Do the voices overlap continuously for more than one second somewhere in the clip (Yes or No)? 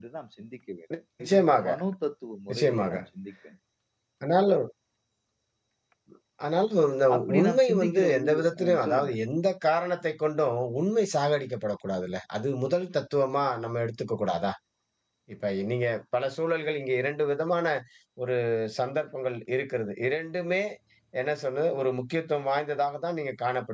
Yes